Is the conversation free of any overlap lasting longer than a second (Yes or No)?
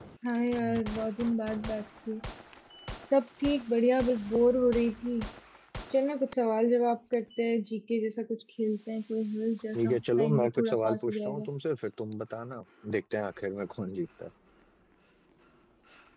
No